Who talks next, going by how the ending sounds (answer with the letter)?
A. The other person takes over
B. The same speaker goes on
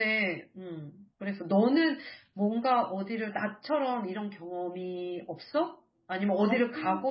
B